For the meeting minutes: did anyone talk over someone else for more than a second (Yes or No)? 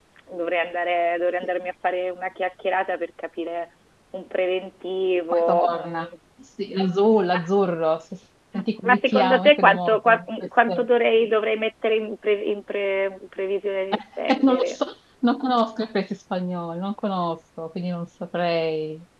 Yes